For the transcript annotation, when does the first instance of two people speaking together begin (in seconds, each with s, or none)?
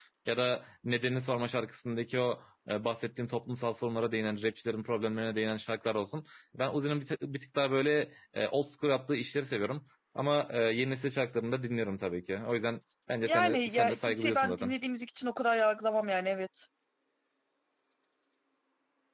13.2 s